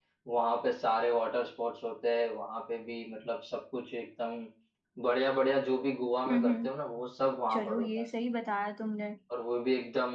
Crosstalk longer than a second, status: none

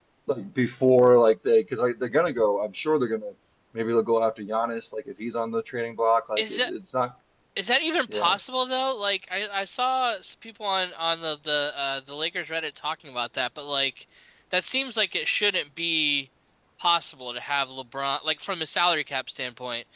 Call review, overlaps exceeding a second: none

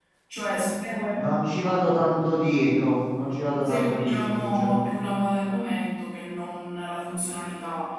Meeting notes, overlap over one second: present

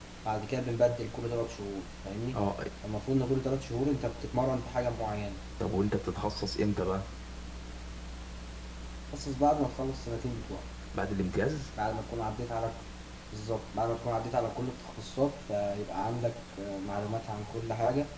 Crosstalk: none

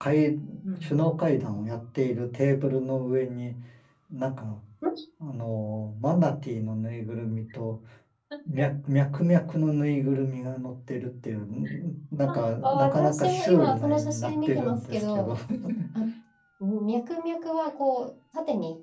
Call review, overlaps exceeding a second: present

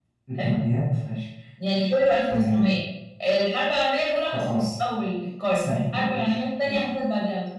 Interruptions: present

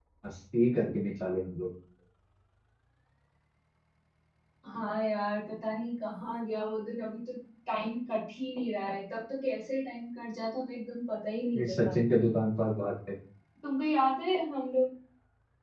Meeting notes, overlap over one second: none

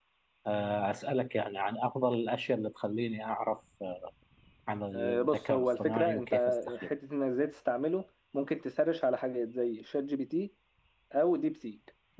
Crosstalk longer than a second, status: present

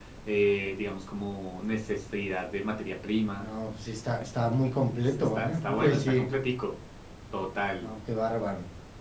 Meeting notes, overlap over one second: present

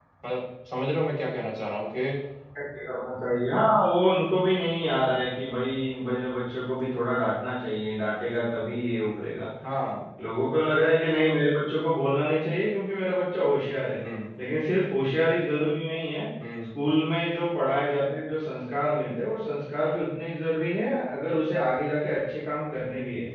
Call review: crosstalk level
none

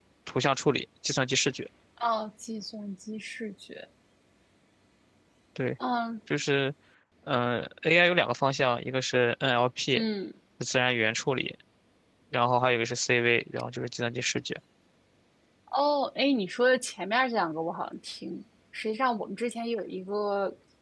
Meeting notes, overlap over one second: none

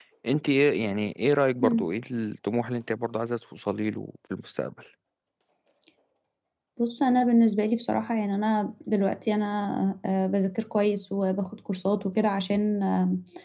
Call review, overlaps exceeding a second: none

